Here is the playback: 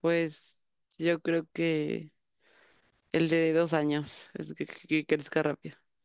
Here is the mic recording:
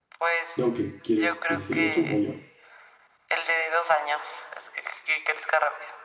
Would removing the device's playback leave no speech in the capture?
No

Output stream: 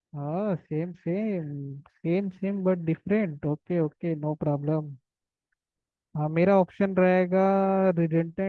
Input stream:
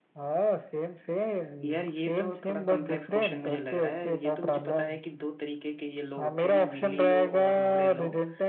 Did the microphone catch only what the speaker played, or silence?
No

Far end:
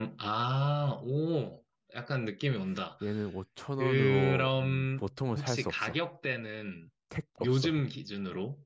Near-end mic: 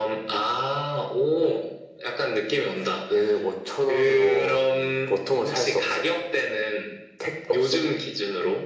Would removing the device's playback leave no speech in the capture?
Yes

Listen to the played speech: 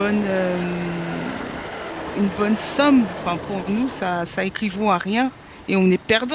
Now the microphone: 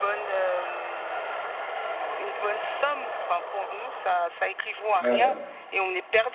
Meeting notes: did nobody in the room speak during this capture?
No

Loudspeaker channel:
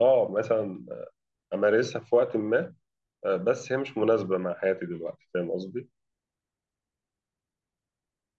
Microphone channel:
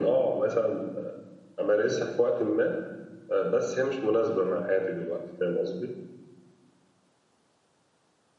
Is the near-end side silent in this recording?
Yes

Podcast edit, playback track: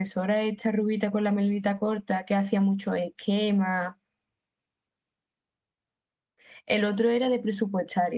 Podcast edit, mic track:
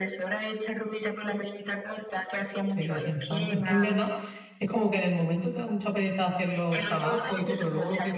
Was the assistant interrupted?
Yes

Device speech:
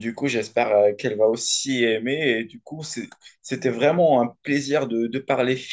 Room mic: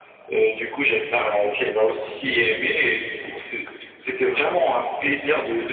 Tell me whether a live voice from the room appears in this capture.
No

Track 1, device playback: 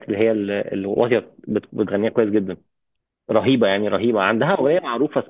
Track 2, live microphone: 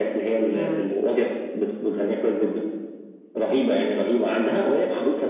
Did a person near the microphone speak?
Yes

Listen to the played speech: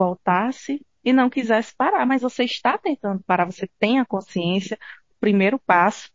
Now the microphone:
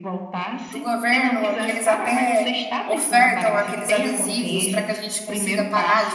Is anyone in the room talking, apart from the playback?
Yes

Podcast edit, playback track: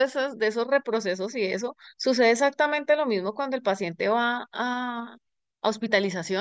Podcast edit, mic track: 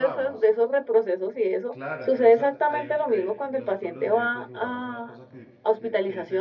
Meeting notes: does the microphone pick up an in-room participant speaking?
Yes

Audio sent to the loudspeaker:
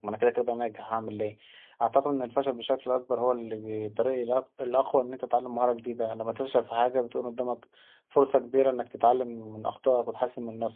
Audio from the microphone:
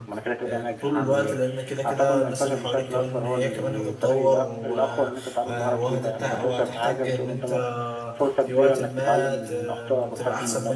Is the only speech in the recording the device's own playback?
No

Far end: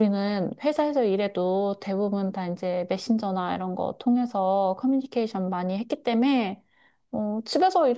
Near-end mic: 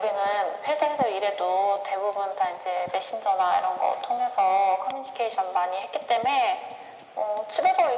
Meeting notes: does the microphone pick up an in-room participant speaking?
No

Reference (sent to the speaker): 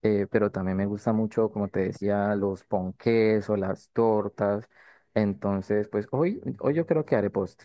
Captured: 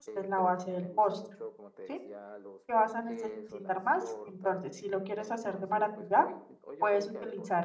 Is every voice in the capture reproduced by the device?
No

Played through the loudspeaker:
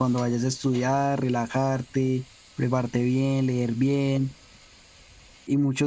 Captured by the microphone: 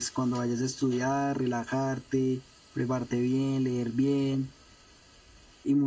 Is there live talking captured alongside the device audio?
No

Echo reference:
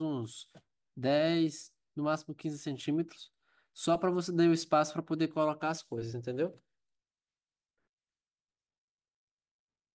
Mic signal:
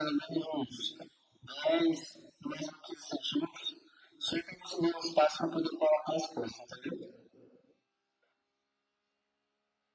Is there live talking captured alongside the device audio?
No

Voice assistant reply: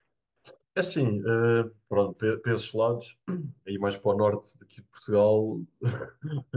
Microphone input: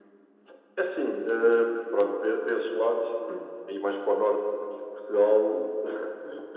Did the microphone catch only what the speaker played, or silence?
Yes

